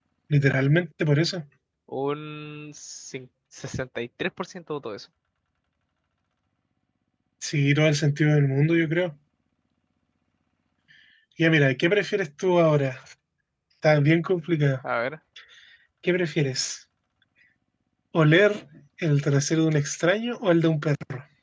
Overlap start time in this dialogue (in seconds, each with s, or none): none